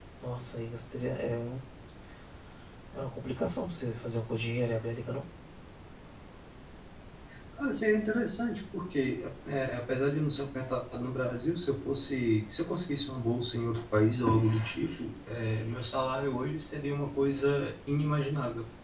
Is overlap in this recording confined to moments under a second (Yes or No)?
Yes